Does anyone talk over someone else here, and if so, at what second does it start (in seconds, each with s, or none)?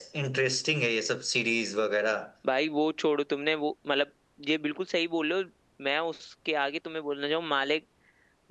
none